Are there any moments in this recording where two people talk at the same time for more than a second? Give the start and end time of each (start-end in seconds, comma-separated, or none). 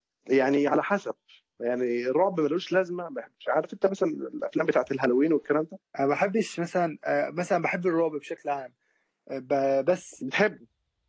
none